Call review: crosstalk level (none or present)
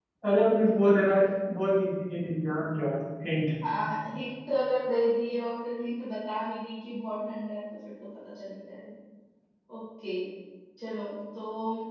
none